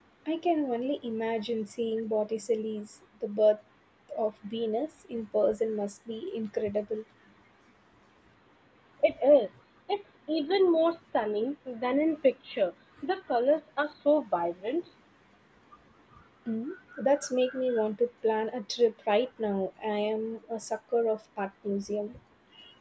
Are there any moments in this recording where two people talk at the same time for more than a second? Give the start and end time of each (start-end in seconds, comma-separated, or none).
none